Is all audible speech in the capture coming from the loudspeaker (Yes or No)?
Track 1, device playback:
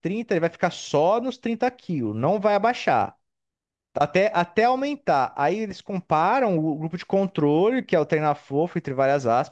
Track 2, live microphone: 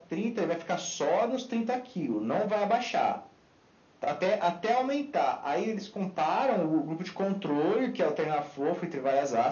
Yes